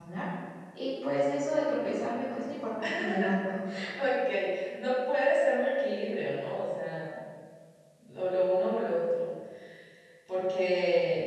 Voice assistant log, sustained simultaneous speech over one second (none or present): none